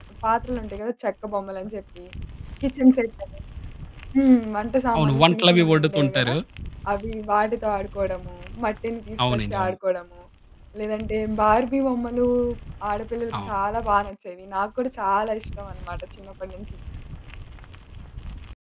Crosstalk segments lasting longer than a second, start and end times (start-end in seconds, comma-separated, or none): 5.0-6.3